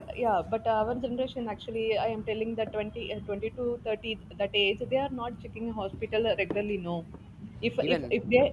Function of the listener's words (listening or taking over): listening